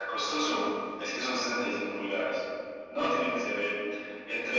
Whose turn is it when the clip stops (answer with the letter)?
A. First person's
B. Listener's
A